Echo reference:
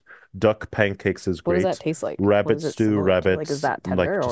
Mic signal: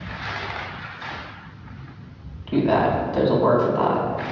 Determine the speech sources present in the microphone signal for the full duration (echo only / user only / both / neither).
user only